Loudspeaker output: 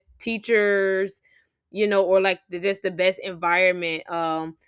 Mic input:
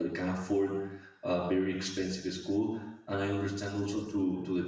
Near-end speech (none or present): present